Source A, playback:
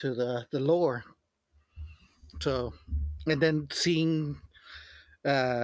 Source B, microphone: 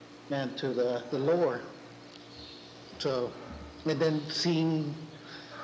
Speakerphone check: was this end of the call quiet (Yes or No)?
Yes